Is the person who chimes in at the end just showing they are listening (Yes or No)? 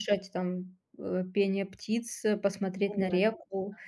Yes